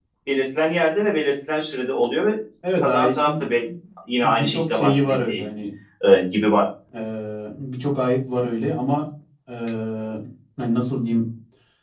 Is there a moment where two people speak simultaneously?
Yes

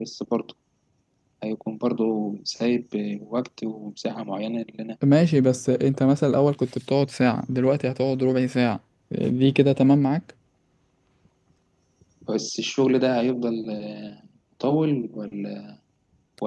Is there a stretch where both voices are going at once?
No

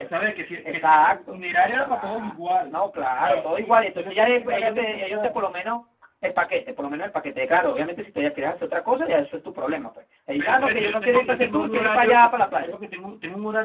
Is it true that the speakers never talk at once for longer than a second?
No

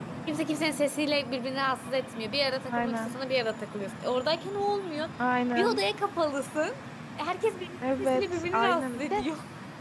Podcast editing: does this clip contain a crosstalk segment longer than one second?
Yes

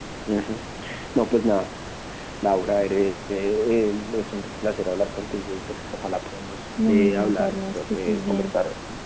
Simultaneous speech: Yes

